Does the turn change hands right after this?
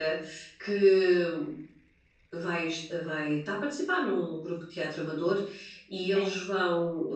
No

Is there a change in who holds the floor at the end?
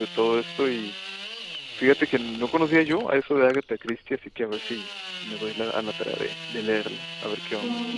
Yes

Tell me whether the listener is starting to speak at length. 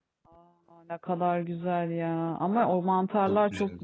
No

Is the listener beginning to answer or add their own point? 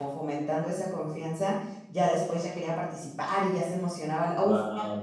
No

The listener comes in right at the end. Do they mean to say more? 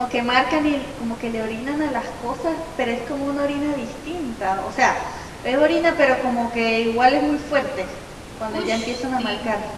Yes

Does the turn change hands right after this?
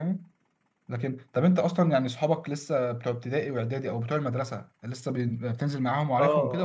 Yes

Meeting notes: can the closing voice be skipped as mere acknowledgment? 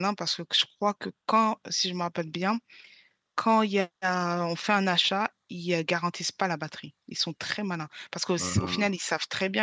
Yes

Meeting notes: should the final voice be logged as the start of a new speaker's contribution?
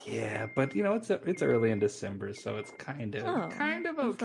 Yes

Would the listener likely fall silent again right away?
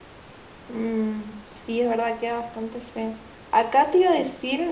Yes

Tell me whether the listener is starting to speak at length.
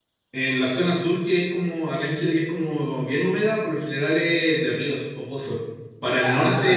No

